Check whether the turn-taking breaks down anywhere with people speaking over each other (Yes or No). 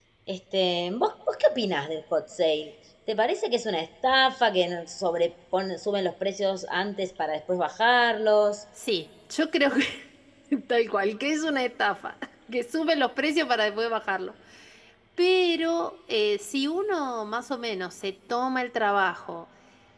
No